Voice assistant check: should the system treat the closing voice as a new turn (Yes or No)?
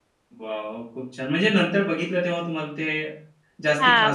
Yes